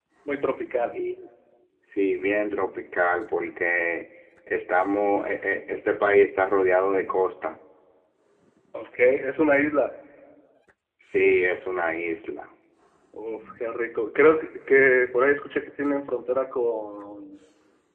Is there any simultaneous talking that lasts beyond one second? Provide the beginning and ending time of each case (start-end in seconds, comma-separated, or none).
none